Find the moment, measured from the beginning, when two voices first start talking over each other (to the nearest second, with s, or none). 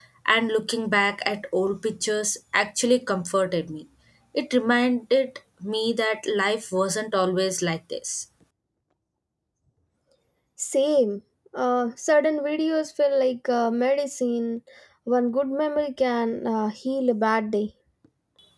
none